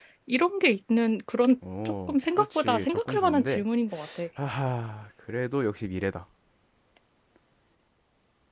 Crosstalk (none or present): present